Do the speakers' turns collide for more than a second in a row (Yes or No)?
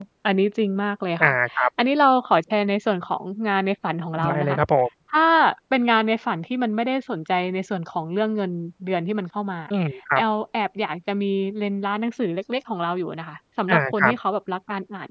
No